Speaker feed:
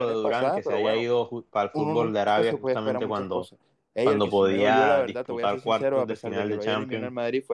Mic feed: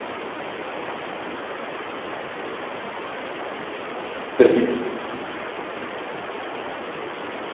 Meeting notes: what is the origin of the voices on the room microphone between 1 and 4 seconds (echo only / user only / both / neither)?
neither